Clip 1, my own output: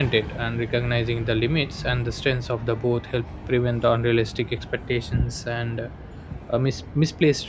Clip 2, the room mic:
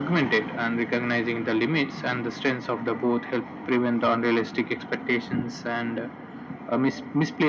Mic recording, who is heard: echo only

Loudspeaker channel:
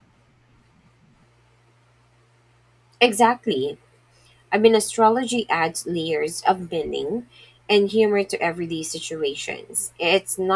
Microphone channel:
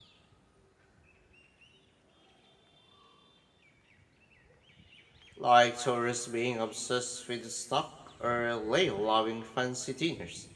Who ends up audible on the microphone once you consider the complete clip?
user only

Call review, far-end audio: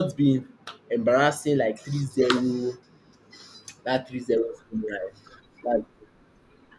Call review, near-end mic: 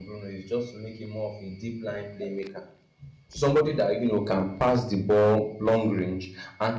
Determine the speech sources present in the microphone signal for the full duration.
user only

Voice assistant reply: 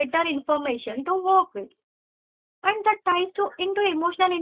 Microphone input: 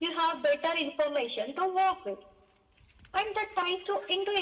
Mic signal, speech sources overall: echo only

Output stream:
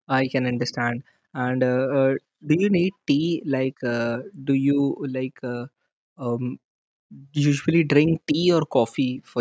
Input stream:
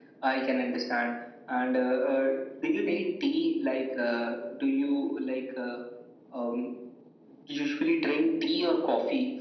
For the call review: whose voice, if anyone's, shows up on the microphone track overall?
echo only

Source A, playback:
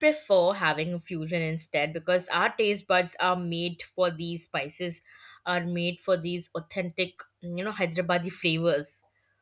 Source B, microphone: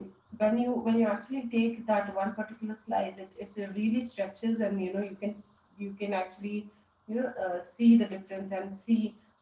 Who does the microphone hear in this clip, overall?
user only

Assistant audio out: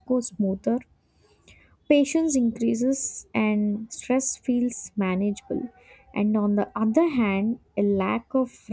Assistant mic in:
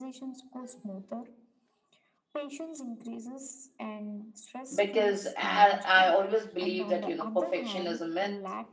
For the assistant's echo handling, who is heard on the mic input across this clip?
both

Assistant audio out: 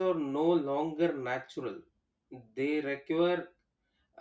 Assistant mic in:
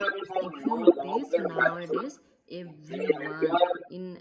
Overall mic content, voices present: both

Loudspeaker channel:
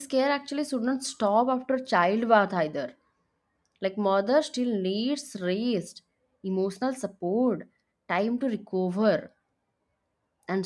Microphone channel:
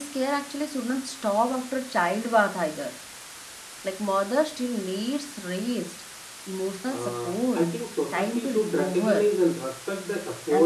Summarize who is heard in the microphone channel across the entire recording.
both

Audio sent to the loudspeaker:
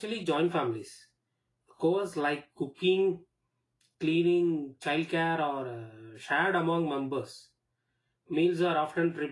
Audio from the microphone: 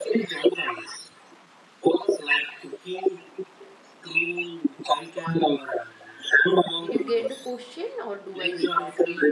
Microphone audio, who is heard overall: both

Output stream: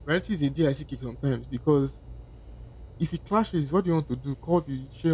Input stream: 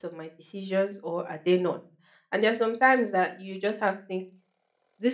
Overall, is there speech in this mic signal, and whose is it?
user only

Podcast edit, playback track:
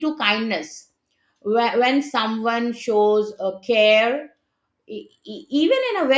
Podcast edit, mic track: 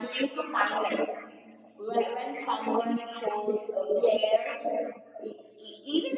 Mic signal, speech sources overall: echo only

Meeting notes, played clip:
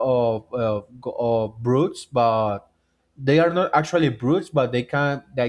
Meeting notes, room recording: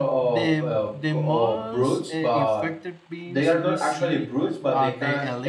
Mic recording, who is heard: both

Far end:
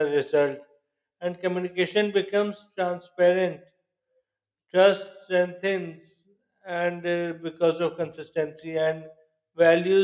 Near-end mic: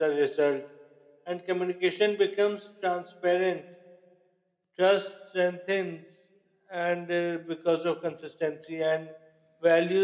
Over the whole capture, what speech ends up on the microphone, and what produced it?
echo only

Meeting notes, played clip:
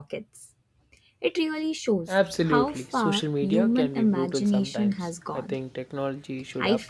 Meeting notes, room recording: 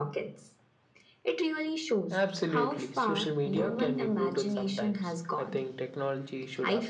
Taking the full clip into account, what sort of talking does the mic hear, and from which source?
echo only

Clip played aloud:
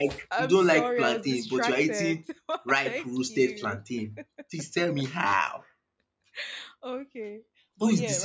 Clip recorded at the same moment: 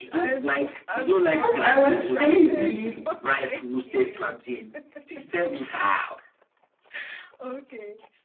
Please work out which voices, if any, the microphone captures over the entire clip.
both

